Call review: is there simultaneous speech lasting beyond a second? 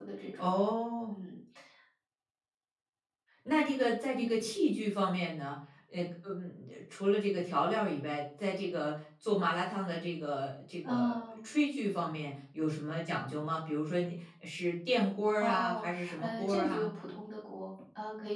Yes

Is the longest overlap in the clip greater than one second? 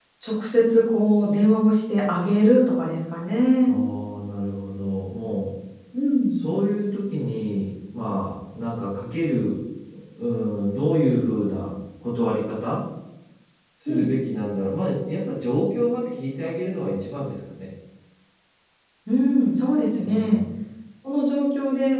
No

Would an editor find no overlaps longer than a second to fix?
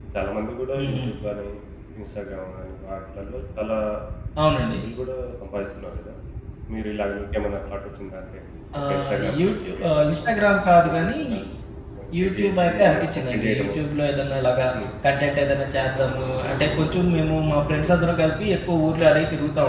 No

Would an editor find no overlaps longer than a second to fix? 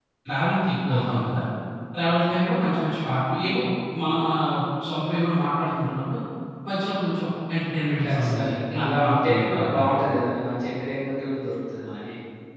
No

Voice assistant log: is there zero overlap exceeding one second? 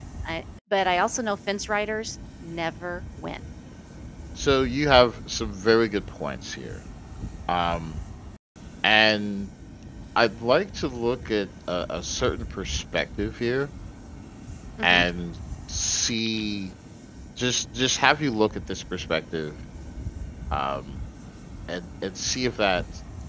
Yes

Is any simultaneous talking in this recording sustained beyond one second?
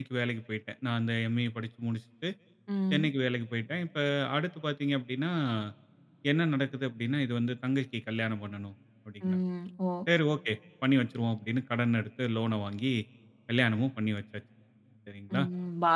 No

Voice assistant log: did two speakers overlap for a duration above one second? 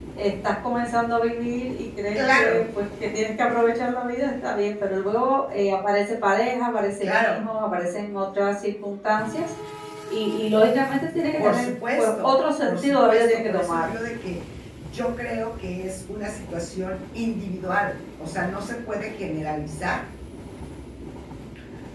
Yes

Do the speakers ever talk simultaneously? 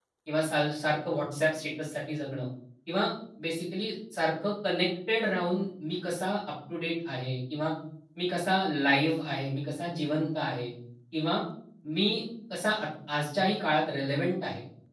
No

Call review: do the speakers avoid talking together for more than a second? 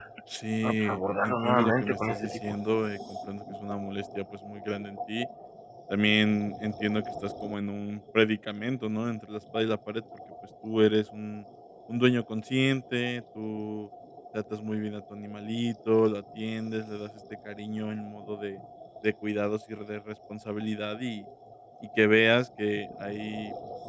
No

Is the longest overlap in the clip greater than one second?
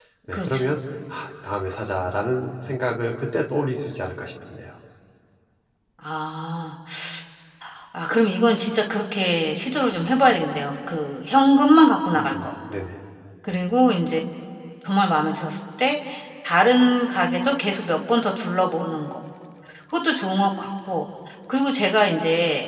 No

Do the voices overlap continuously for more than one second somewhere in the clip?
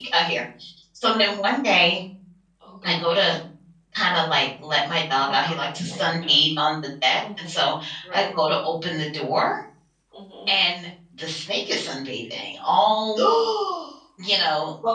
Yes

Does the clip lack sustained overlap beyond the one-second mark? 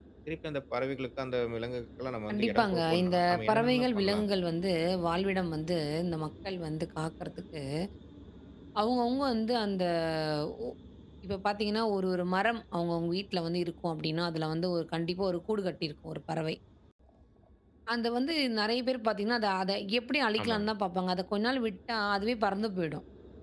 No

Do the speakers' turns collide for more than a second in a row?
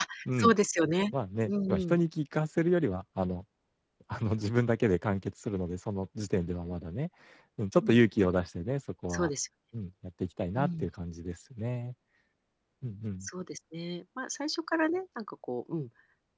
No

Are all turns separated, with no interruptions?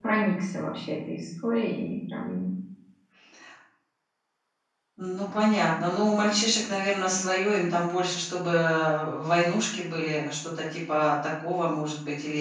Yes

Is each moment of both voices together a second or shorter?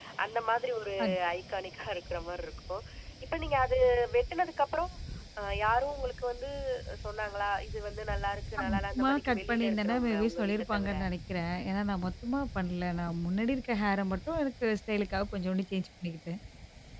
No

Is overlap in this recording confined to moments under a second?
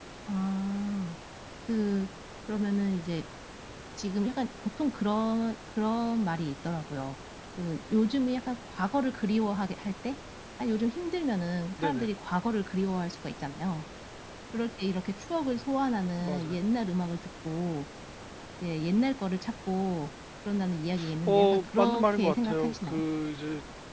No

